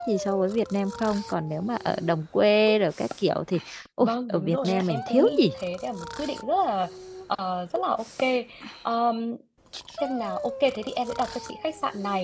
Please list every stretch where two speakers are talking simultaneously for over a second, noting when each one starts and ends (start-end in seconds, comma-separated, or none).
4.0-5.5